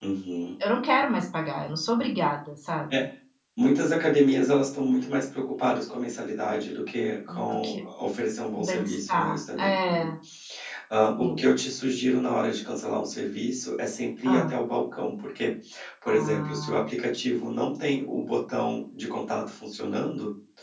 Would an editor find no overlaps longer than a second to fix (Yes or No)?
No